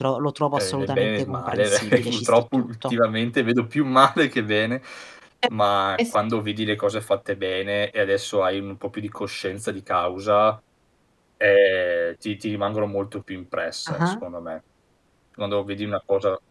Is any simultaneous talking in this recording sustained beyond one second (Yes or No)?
Yes